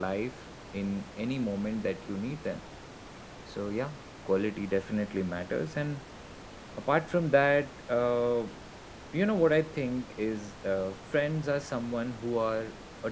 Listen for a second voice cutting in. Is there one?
No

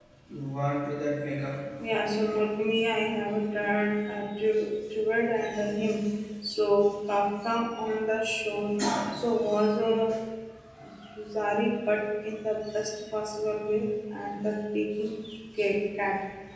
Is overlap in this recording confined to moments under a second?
Yes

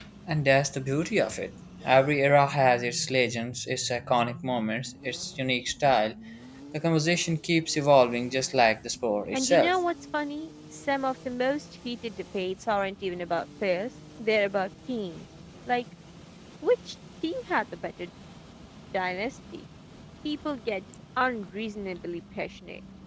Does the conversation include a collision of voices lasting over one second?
No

